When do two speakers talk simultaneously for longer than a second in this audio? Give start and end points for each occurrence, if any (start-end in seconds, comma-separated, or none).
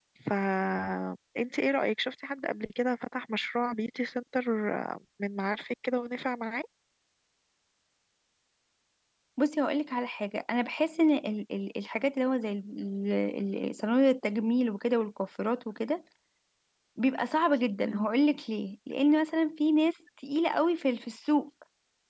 none